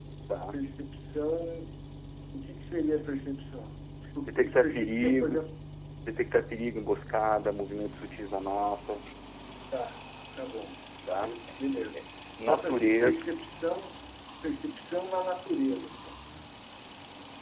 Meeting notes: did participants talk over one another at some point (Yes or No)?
Yes